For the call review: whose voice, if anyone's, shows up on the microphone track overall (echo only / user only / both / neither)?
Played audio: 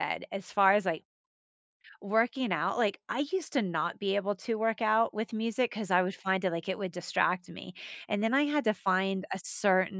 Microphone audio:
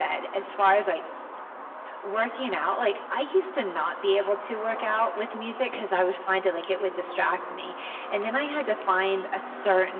echo only